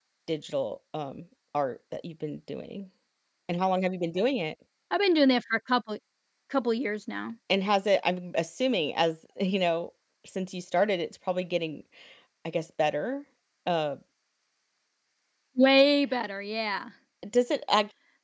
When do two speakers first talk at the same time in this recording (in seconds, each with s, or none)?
none